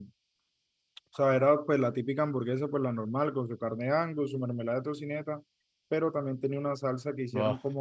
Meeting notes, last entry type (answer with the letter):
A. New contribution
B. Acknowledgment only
B